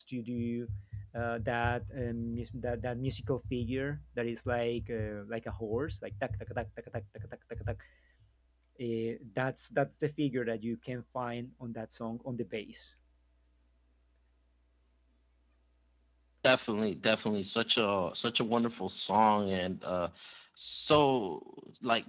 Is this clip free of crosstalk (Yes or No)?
Yes